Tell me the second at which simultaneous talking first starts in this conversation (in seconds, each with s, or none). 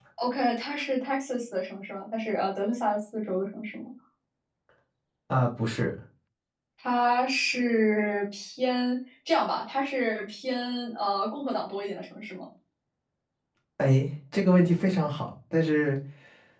none